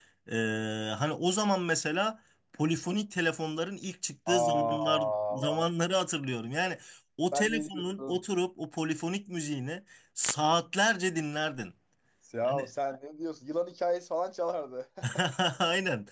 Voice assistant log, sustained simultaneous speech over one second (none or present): present